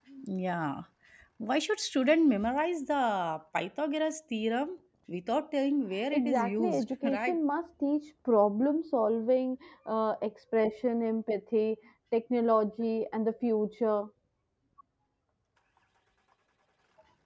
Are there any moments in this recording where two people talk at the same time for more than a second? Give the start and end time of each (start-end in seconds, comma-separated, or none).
6.1-7.4